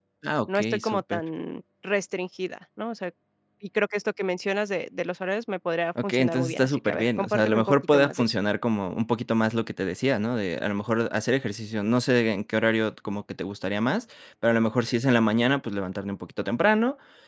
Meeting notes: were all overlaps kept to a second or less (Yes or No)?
No